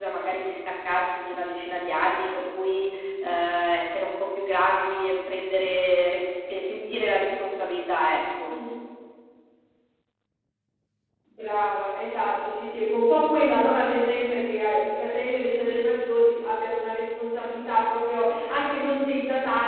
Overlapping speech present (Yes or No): No